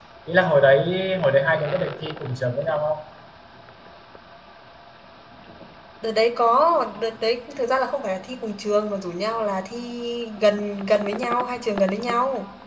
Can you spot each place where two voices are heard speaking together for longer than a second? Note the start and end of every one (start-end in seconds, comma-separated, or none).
none